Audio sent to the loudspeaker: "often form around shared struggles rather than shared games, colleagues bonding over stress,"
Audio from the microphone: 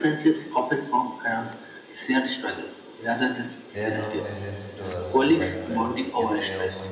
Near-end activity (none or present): present